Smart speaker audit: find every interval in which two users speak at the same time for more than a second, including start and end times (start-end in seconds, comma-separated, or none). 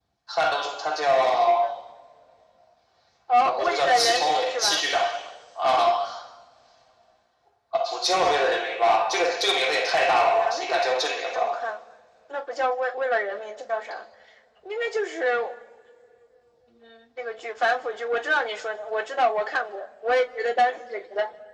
3.4-4.9